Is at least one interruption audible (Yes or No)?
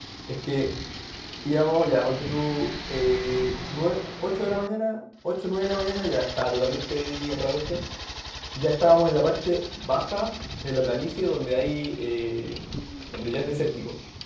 No